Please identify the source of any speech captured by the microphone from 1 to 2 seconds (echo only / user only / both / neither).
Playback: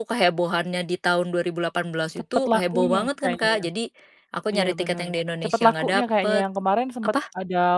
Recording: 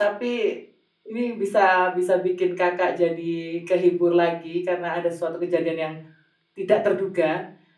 user only